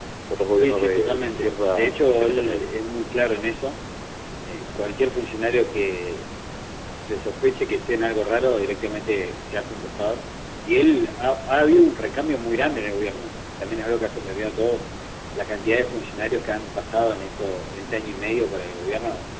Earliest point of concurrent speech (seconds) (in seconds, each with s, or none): 0.6 s